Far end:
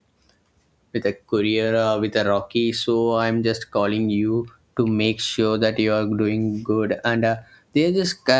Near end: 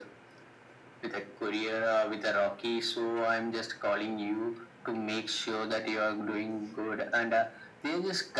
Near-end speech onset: none

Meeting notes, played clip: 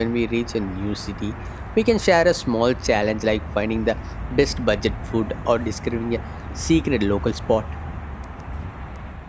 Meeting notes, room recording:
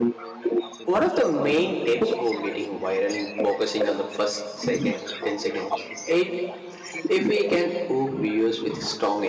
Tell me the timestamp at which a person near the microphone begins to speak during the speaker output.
0.8 s

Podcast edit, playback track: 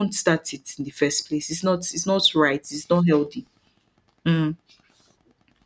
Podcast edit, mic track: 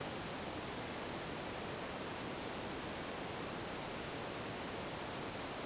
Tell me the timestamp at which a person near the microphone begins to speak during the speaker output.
none

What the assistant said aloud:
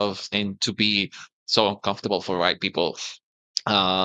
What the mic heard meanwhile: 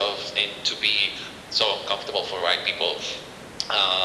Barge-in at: none

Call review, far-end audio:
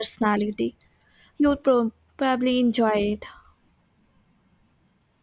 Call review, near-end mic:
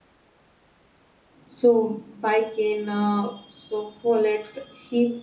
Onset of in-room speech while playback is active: 1.4 s

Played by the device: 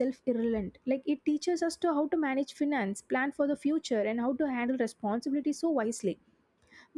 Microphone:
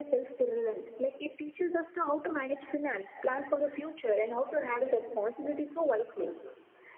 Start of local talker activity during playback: none

